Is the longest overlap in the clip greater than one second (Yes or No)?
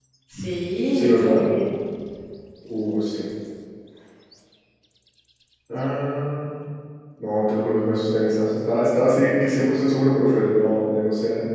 No